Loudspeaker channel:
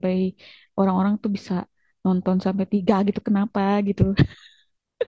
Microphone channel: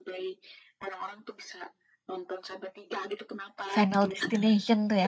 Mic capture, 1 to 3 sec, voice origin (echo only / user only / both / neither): echo only